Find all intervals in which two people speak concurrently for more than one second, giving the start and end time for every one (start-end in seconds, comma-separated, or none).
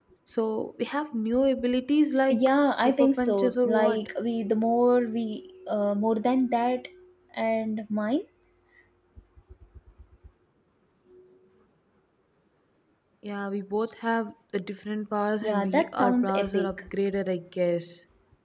2.3-4.0, 15.4-16.8